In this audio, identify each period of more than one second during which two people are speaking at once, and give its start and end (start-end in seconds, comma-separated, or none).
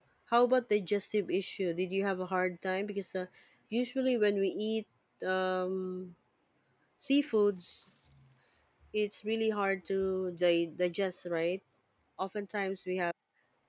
none